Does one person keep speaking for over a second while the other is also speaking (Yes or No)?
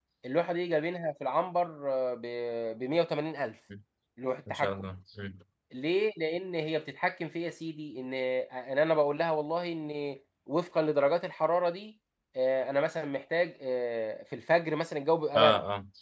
No